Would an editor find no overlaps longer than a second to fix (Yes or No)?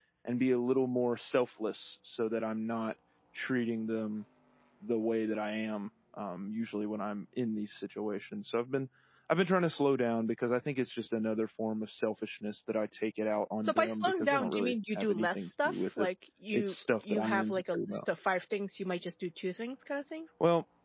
No